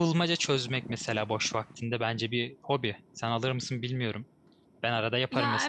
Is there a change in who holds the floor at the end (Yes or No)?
Yes